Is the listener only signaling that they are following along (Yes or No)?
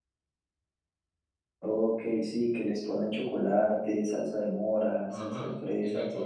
No